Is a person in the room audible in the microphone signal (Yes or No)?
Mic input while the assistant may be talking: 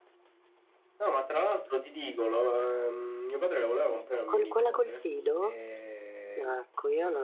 Yes